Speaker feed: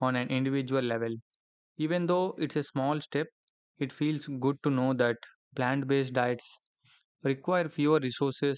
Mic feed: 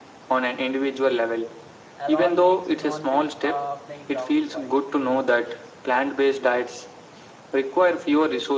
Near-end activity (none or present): present